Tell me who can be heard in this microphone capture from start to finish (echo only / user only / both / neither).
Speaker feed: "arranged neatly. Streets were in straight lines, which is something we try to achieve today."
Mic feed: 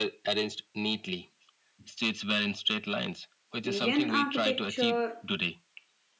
both